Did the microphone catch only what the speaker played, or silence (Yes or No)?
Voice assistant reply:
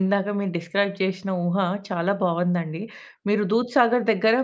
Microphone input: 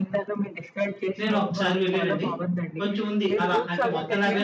No